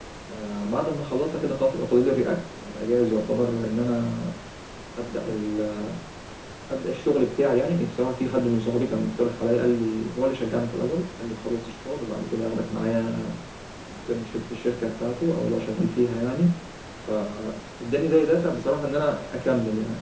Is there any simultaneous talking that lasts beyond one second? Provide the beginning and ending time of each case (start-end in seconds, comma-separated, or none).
none